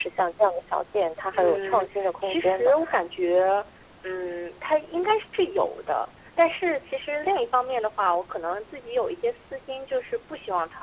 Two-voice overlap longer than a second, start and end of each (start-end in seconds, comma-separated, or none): 1.3-2.8